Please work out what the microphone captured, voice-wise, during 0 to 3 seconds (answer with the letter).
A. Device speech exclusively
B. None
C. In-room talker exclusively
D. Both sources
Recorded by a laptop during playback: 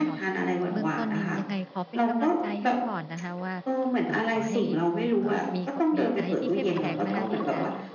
D